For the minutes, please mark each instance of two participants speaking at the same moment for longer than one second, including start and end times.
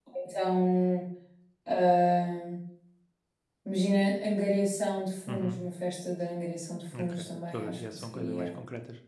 7.0-8.5

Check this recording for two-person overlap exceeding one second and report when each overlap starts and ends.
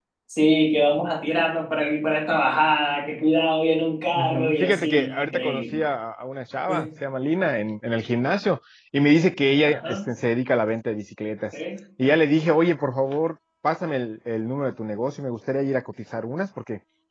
4.2-5.8

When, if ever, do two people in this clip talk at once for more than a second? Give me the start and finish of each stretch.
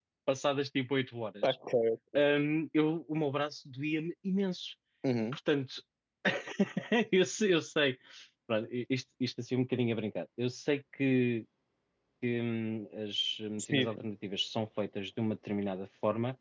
none

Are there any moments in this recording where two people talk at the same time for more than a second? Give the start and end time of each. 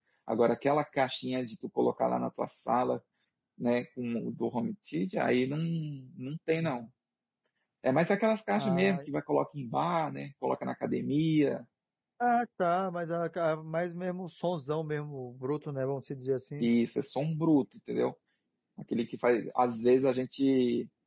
none

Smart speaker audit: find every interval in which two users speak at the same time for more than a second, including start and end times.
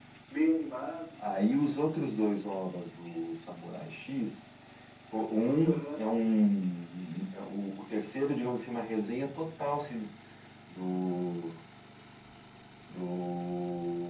none

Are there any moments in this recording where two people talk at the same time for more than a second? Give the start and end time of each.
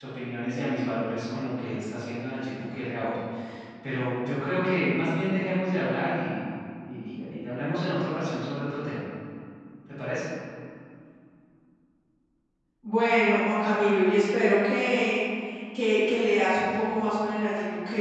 none

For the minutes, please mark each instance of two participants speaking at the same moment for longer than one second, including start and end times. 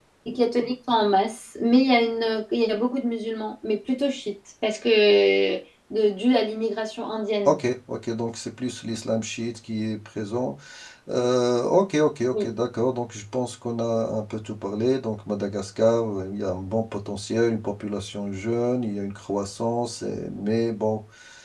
none

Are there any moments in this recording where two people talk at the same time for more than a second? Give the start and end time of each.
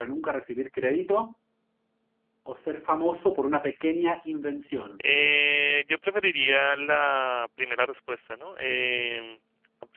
none

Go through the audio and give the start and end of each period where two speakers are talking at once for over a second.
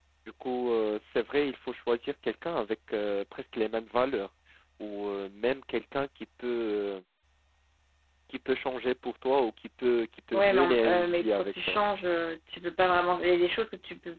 10.3-11.8

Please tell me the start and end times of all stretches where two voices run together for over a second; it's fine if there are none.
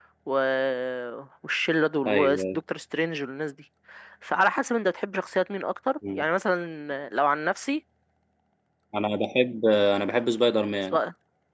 none

